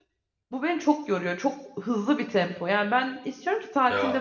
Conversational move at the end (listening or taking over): listening